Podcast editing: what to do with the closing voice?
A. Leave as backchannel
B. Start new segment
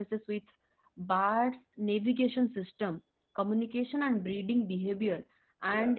A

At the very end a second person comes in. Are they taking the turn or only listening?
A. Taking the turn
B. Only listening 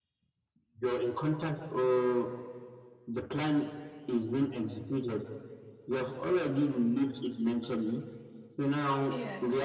B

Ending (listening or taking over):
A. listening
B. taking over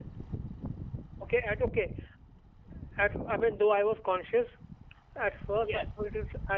A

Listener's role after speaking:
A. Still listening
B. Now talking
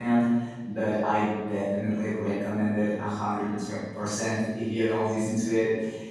A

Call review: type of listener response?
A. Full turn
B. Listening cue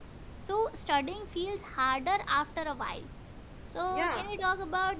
B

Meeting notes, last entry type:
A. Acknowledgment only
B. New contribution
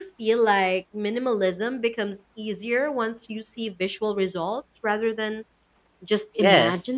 B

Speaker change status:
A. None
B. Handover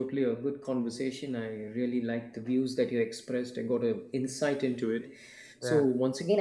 A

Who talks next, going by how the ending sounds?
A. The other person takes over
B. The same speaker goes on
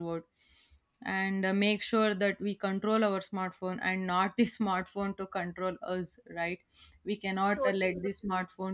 B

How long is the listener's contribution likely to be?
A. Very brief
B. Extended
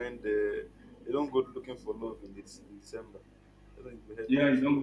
B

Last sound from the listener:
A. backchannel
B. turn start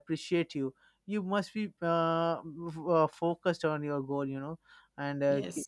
A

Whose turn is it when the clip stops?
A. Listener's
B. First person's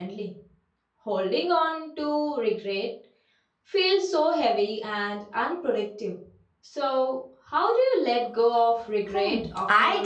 A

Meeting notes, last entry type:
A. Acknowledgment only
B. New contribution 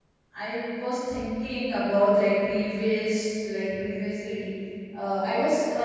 A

